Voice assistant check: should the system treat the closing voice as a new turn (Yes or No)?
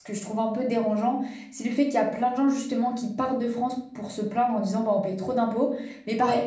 No